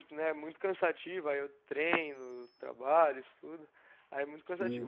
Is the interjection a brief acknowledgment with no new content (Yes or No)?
Yes